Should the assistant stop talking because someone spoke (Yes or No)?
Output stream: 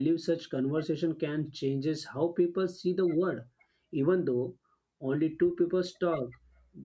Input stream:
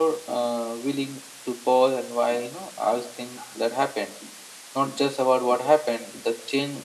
Yes